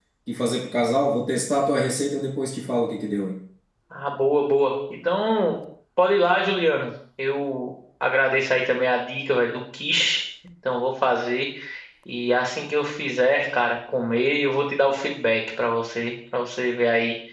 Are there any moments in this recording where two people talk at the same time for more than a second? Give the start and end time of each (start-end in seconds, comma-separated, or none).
none